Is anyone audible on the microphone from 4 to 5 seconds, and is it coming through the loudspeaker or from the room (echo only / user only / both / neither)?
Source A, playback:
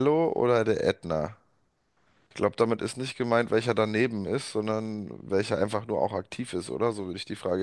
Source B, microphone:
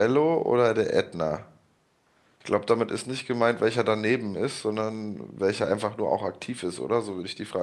echo only